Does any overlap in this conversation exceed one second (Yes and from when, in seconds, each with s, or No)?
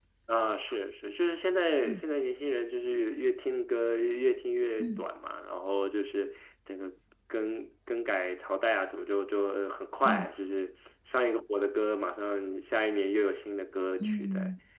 No